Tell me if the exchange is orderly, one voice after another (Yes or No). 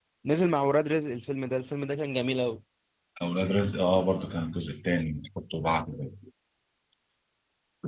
Yes